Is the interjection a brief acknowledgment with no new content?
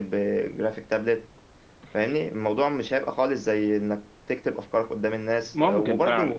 Yes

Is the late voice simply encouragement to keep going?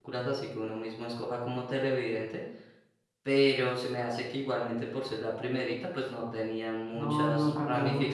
No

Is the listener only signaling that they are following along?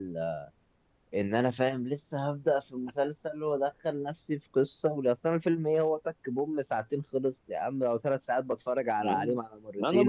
No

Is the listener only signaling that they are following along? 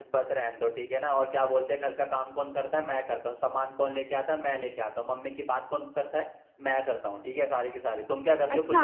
No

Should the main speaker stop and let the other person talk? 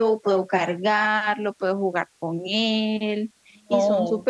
Yes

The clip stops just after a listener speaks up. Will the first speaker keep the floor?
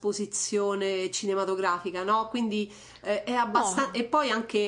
Yes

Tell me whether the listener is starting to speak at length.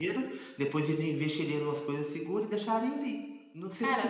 No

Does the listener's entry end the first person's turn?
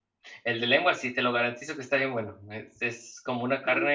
No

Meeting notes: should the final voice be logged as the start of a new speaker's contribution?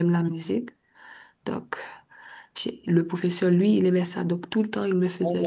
Yes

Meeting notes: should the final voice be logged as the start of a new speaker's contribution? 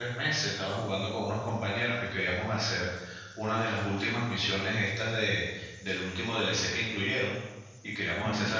No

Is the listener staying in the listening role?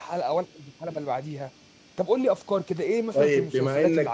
No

